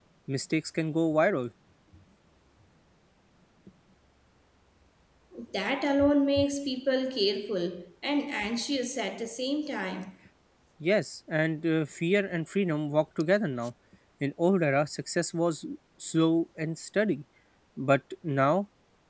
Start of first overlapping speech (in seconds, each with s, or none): none